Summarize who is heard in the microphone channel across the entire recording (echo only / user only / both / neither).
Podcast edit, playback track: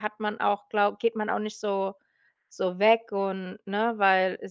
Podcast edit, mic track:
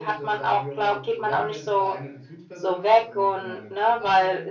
both